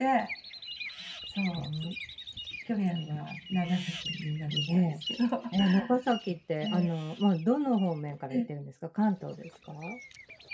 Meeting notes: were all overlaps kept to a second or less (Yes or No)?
Yes